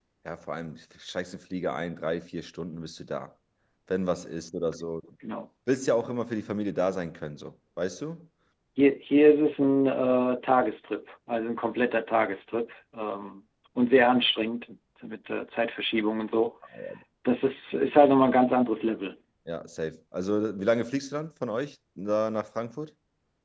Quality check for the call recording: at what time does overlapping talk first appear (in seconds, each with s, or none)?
none